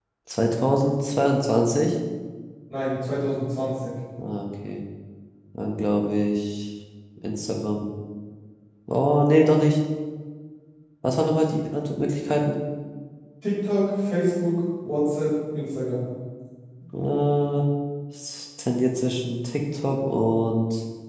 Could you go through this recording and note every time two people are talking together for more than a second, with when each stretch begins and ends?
none

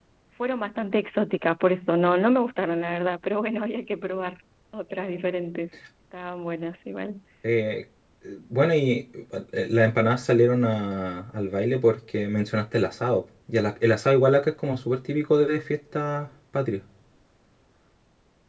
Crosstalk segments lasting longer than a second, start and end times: none

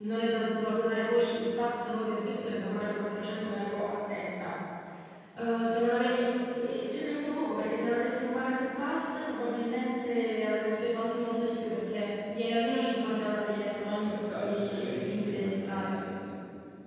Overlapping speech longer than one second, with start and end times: 13.7-16.0

